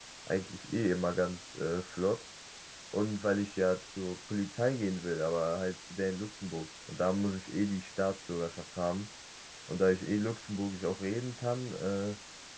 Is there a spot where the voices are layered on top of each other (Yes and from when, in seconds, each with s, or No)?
No